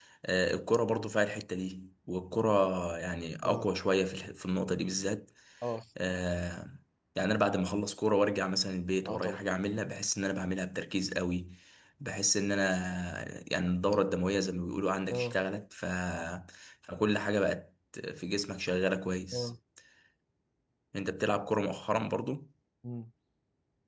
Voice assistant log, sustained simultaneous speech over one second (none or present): none